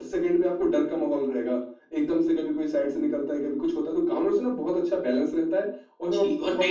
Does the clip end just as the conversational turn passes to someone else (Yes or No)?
Yes